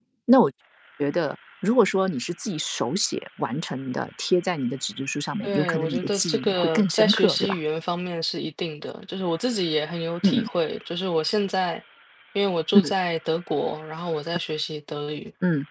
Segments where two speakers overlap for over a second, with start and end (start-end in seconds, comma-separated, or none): 5.4-7.6